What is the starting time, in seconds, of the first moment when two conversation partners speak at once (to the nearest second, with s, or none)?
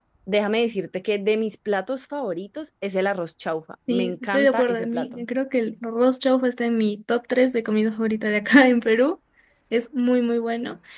4 s